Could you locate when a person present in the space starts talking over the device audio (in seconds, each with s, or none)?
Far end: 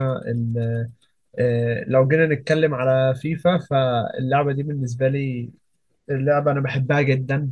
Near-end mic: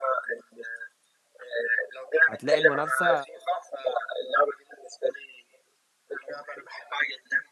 2.3 s